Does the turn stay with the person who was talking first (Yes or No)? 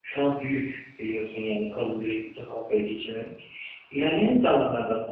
Yes